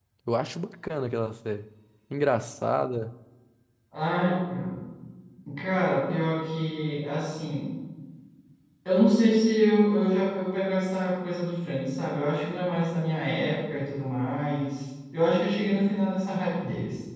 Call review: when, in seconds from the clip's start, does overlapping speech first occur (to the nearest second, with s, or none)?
none